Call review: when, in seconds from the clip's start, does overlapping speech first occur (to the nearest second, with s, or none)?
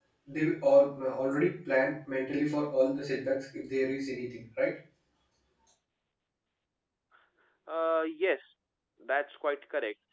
none